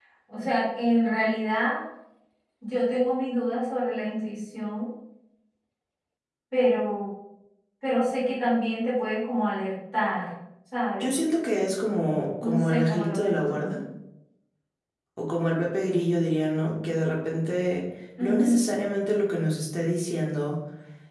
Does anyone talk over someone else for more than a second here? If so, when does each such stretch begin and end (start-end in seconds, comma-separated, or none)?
12.4-13.7